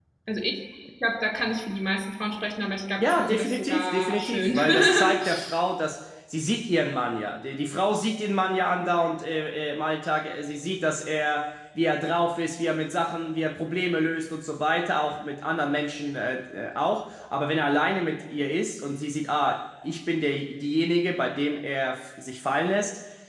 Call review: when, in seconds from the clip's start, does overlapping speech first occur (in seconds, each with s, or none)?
3.0 s